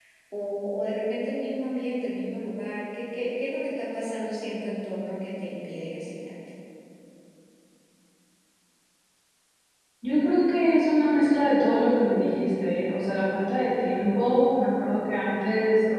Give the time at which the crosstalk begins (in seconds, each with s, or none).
none